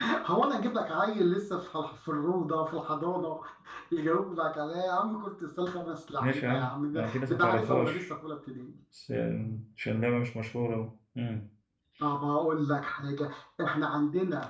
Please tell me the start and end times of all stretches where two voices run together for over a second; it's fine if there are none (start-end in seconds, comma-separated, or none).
6.2-8.0